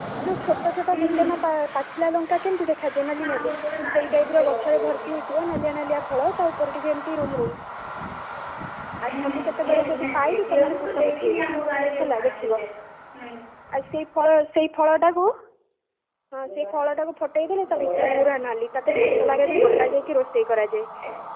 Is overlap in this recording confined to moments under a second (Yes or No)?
No